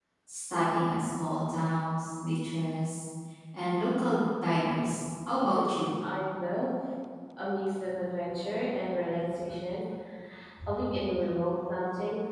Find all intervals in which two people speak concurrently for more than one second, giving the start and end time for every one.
none

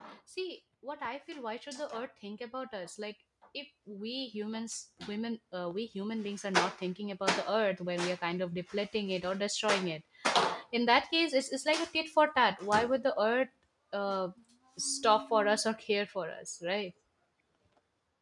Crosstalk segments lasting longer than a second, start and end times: none

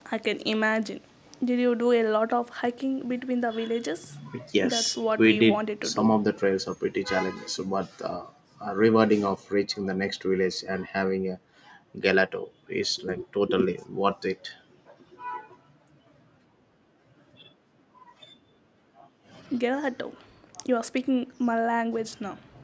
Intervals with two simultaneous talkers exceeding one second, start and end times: 4.6-6.2

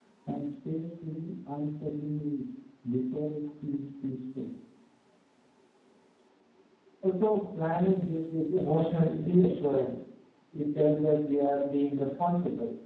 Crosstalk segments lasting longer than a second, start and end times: none

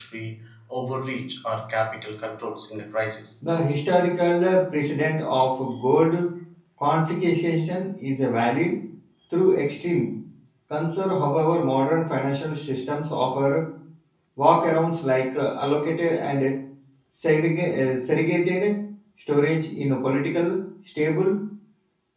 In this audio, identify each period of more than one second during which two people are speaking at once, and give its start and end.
none

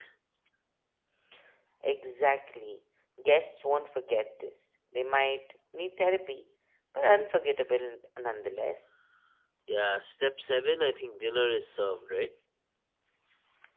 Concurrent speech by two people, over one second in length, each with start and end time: none

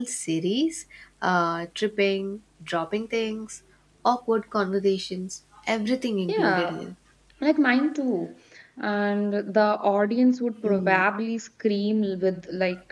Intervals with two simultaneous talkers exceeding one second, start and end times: none

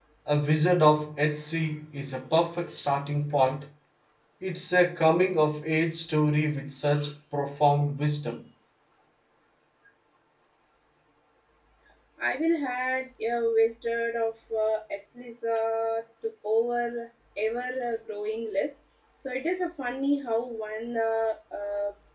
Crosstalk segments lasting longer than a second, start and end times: none

